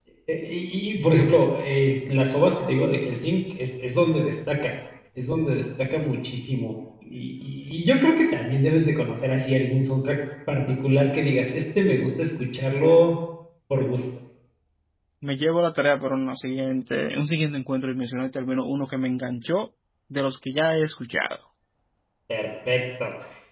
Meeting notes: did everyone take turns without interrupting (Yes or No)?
Yes